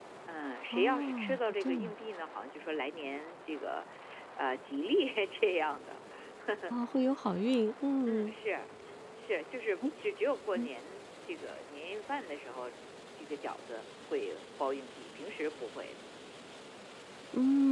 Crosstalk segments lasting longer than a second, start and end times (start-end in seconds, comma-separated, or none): 0.7-1.9